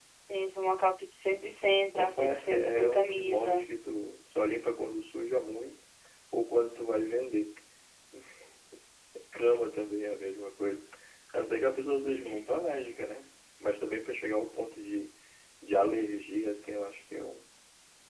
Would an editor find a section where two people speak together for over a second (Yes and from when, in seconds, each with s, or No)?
Yes, from 1.9 s